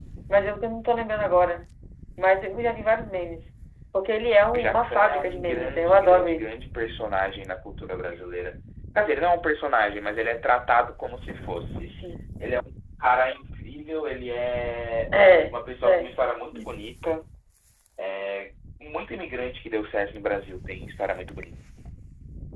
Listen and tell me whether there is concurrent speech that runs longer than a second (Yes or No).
Yes